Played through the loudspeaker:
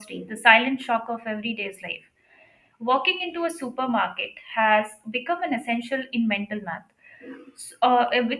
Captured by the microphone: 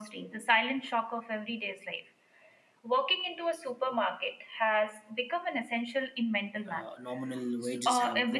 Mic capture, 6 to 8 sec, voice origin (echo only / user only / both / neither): both